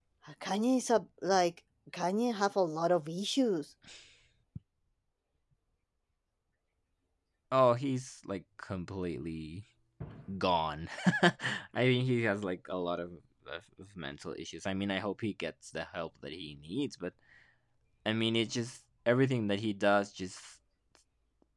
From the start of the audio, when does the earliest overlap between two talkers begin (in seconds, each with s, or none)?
none